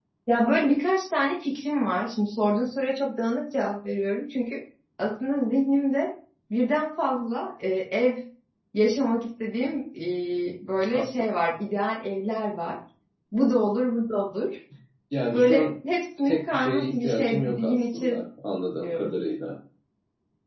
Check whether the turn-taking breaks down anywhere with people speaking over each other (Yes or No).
Yes